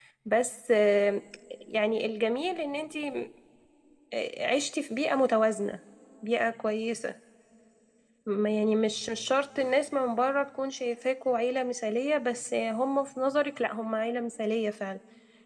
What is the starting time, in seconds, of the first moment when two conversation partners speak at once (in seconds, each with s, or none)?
none